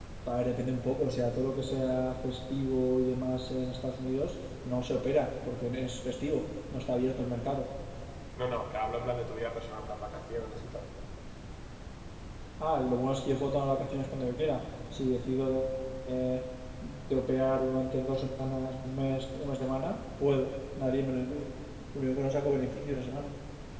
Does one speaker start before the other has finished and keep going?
No

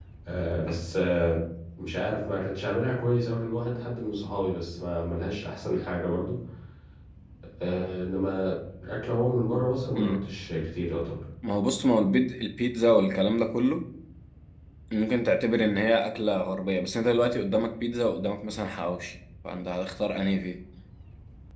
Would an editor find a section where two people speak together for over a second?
No

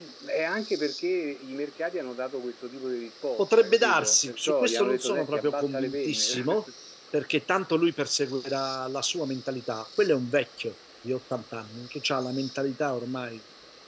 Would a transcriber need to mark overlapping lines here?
Yes, from 3.4 s

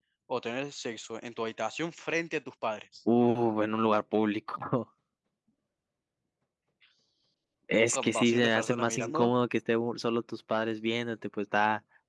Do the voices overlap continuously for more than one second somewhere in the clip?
Yes, from 7.9 s

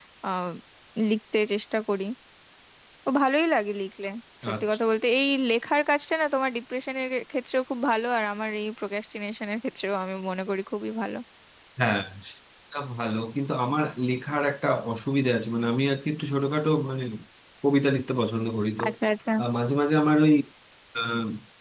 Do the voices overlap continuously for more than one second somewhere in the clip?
No

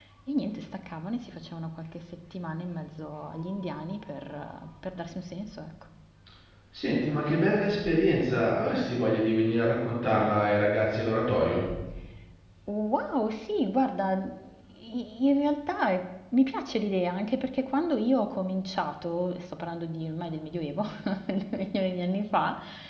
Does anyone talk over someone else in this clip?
No

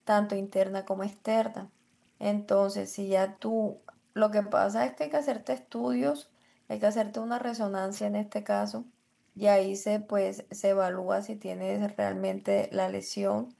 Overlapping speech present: No

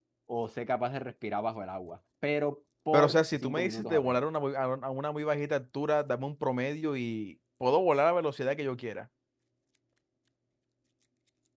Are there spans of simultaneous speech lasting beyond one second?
Yes, from 2.9 s

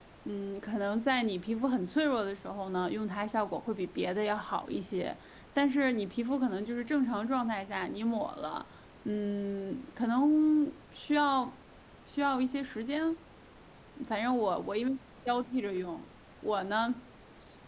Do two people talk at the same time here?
No

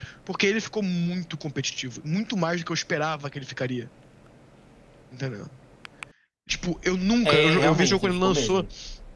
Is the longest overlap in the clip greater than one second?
Yes, from 7.2 s

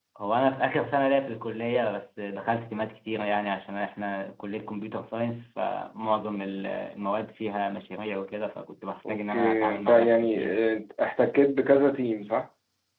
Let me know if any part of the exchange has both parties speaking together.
Yes, from 9.0 s

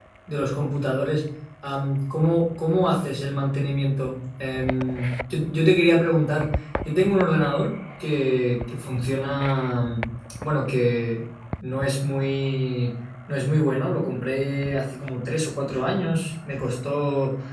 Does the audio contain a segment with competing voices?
No

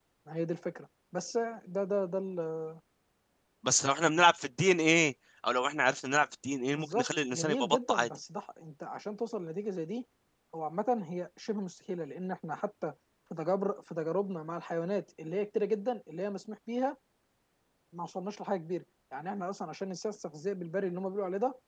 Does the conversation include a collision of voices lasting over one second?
Yes, from 6.7 s

